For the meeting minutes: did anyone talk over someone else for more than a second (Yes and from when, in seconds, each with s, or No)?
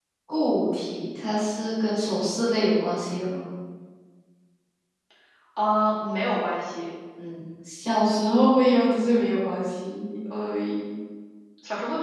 No